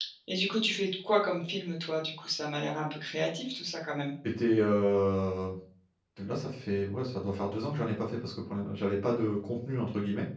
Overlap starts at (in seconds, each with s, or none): none